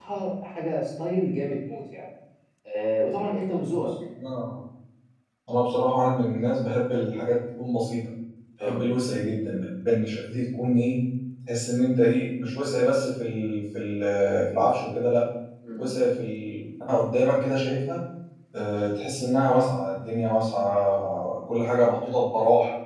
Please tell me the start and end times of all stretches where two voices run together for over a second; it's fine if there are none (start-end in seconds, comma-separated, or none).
none